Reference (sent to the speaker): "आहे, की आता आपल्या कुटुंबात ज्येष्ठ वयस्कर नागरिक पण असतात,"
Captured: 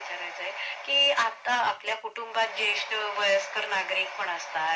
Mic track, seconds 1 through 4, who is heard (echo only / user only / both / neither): echo only